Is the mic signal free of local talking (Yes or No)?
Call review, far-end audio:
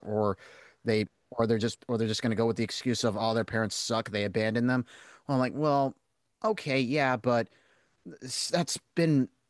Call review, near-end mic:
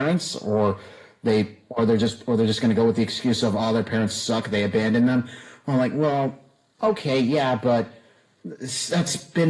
Yes